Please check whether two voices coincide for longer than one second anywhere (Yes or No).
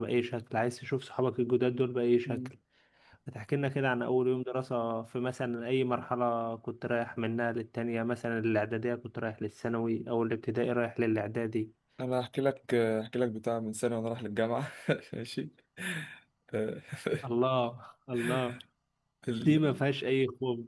No